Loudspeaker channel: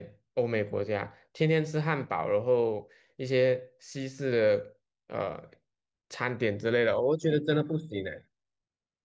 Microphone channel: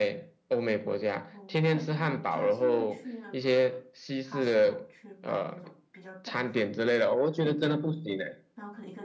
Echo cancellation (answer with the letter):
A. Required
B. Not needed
A